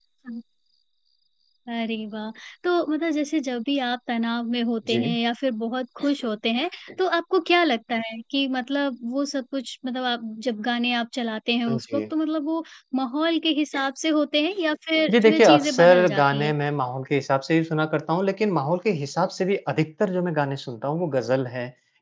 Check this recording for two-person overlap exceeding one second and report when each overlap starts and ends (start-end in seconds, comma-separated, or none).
15.1-16.5